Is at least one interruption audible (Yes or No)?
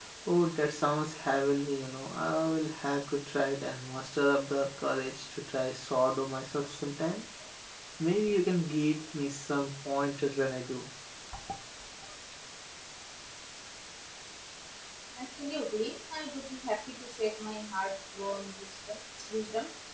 No